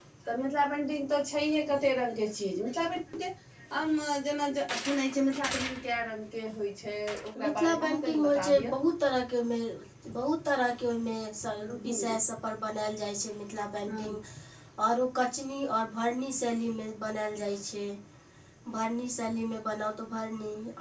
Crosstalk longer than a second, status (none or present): present